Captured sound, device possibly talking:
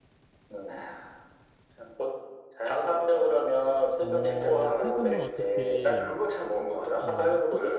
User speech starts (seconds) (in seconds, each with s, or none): 4.0 s